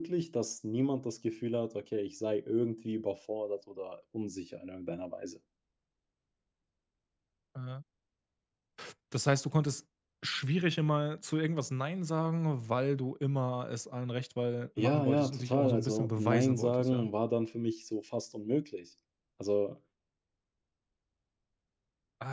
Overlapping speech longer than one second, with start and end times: 14.8-17.1

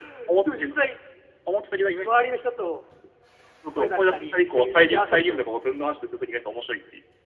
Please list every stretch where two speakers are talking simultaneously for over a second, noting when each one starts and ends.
3.8-5.4

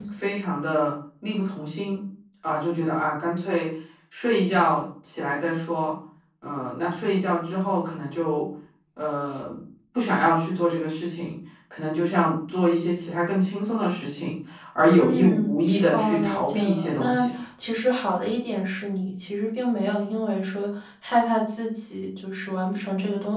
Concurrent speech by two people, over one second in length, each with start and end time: 15.9-17.3

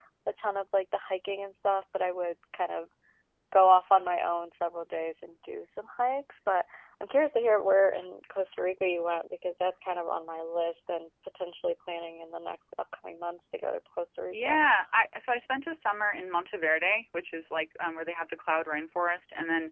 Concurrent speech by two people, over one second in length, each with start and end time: none

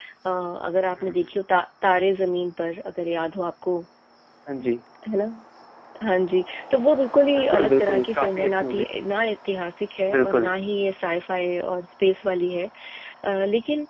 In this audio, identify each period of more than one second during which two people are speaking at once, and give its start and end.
7.4-8.9

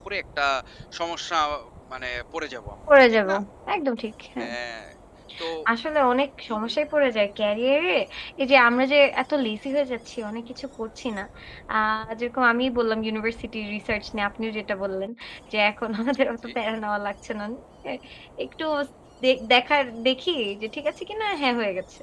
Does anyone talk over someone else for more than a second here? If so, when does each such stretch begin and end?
none

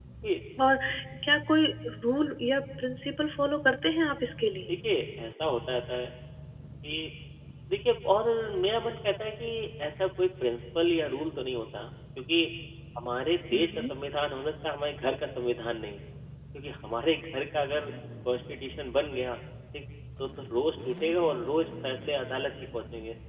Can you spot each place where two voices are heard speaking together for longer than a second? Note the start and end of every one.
none

